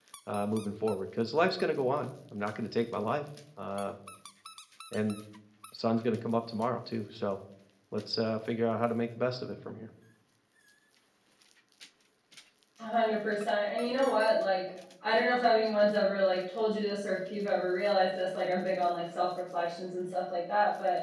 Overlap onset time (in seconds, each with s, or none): none